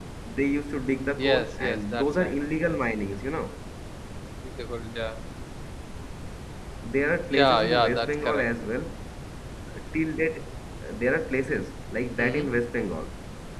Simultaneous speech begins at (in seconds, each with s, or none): 1.2 s